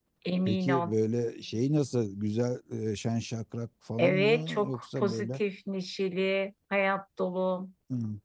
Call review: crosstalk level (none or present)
present